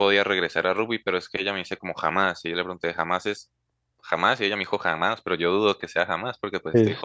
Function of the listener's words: taking over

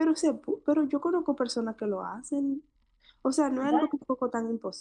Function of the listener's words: listening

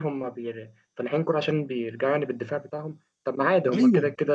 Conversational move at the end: listening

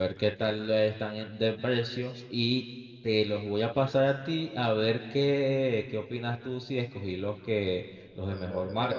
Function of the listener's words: taking over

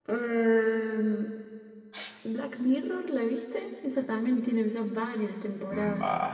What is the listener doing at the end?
taking over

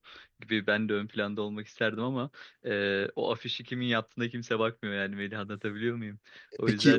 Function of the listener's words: taking over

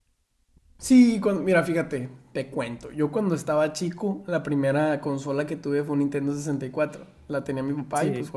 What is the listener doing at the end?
listening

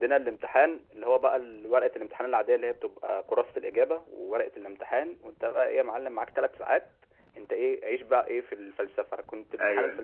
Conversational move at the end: listening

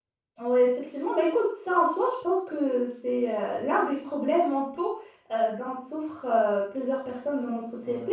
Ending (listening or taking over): listening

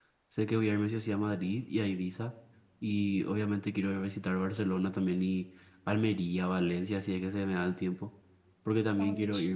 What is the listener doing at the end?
listening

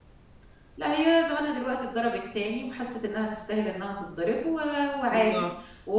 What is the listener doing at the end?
listening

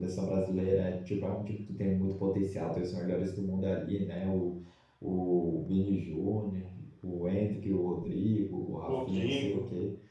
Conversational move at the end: listening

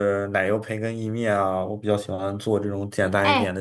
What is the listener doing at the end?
taking over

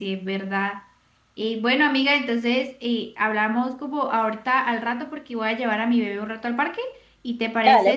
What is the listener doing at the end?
taking over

